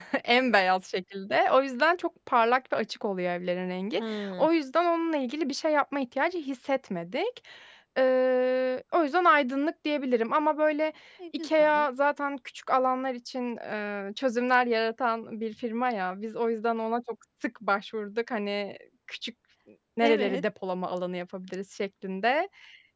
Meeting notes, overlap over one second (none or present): none